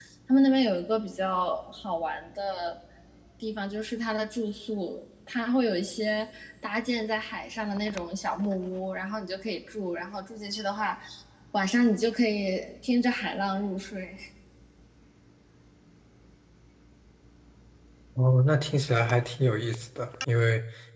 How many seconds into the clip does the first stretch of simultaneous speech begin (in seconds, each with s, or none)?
none